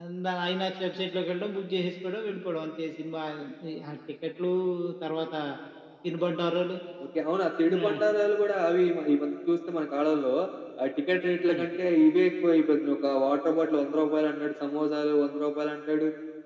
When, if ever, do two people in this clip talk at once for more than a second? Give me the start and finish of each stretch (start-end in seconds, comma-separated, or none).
none